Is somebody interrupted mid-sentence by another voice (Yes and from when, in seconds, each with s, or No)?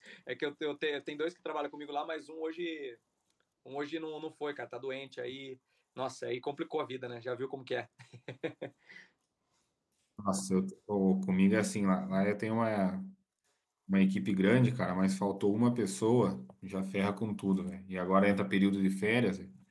No